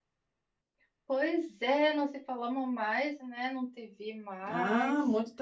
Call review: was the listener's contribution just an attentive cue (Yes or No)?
No